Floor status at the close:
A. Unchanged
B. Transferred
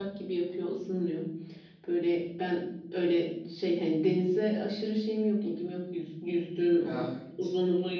A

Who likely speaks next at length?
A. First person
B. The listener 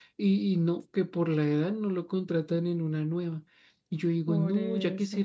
A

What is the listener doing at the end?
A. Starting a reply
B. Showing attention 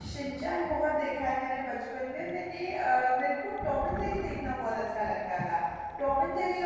B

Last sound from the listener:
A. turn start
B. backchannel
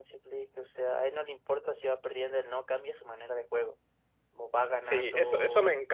A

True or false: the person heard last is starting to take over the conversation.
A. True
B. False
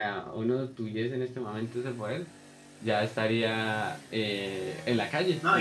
A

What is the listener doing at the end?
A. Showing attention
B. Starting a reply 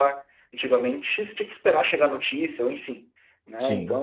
A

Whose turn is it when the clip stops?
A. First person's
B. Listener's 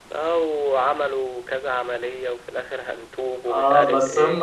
B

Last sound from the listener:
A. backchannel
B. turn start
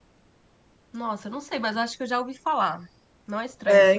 B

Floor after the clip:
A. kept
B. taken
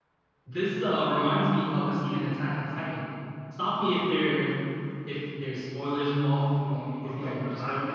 B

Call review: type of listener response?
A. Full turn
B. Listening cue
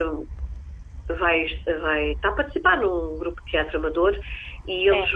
B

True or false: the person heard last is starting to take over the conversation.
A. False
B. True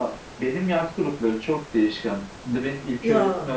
A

